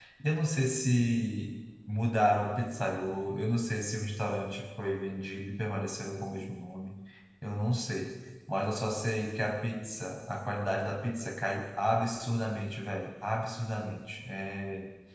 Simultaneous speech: No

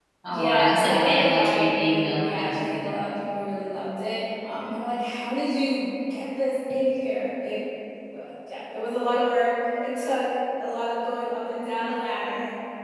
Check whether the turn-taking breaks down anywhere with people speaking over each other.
Yes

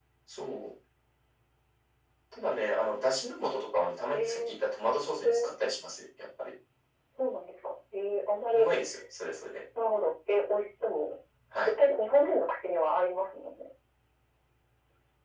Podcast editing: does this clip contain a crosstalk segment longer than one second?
No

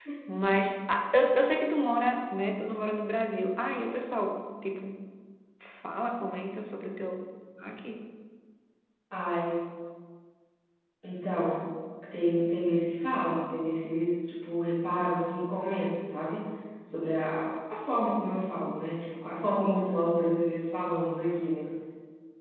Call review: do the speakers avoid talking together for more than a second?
Yes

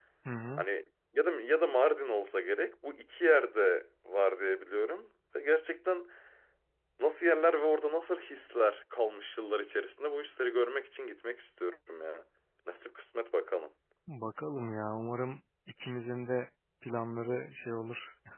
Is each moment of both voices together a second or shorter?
Yes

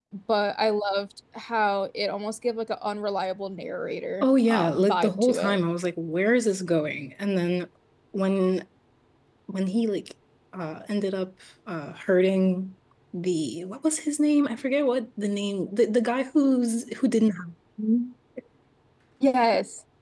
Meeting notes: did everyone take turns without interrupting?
No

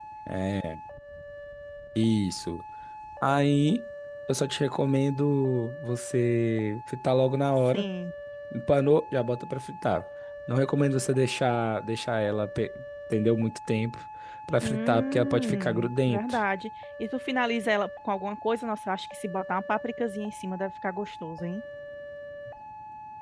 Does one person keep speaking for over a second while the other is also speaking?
Yes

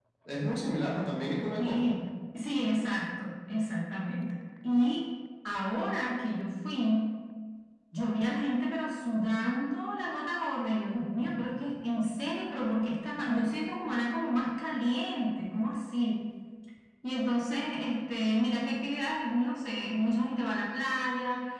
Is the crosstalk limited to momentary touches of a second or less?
Yes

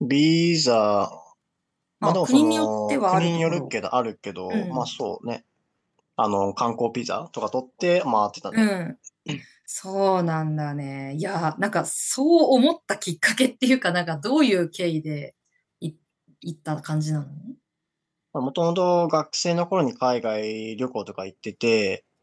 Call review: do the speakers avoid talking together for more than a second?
No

